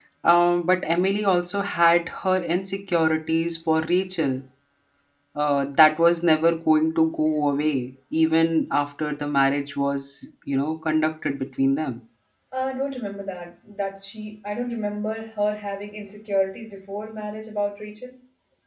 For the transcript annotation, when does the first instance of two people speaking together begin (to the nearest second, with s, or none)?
none